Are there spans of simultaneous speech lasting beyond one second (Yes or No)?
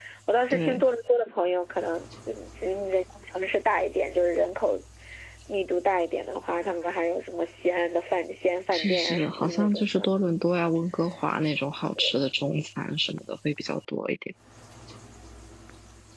Yes